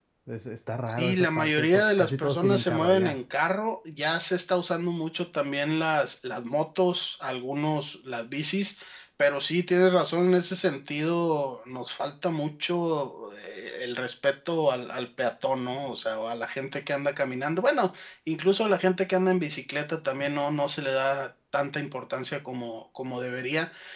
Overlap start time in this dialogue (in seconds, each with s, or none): 0.9 s